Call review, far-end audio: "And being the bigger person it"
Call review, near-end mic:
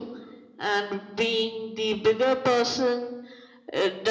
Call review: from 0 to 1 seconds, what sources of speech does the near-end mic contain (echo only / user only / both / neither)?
echo only